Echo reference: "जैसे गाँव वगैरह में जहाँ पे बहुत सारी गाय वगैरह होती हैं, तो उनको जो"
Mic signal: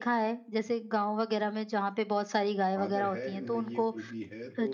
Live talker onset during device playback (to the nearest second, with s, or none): 3 s